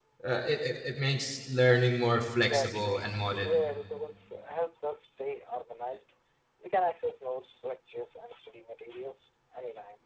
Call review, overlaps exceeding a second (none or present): present